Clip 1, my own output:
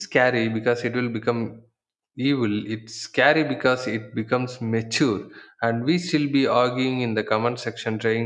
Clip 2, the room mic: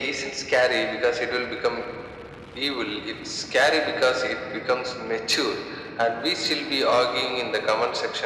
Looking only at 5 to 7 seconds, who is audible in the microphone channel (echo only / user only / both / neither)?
echo only